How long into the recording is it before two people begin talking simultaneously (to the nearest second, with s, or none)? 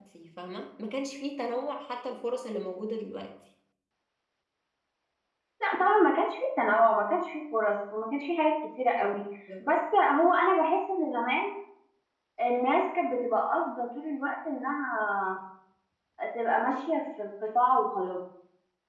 none